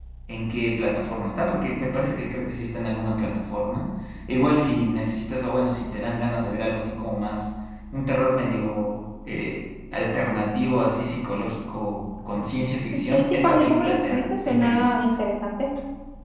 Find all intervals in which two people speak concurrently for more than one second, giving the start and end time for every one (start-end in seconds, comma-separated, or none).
12.9-14.9